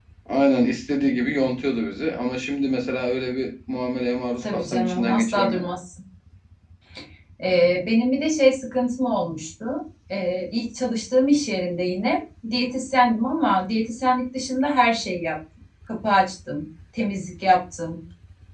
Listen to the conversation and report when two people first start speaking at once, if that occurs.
4.4 s

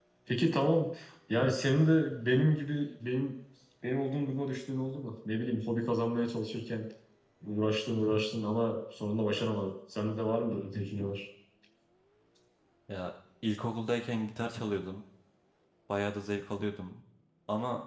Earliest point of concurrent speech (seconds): none

